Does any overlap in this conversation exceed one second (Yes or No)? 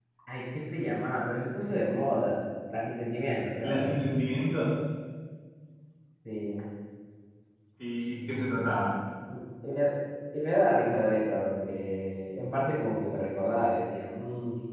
No